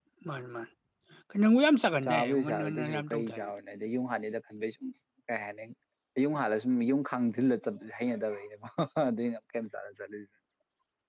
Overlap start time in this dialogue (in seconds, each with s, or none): 2.0 s